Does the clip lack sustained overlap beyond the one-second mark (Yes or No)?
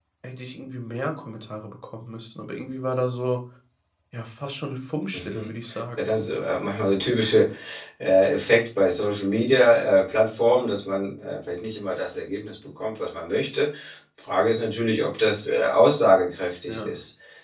Yes